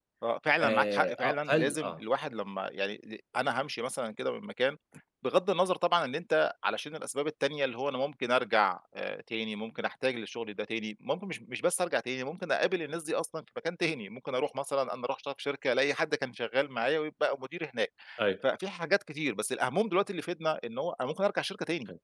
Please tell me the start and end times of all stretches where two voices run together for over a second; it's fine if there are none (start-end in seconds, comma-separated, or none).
0.6-1.9